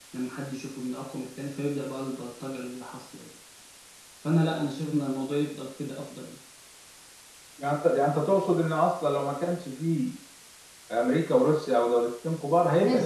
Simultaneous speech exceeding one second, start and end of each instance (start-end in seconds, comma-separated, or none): none